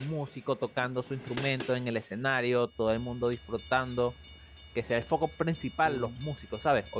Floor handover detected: No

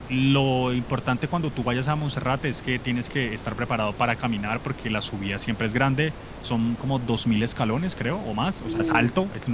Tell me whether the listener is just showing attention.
Yes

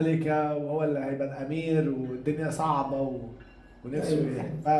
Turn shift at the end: Yes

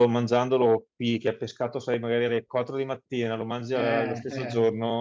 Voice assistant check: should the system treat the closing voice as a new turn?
No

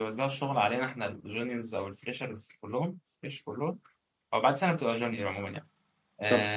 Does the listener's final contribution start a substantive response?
No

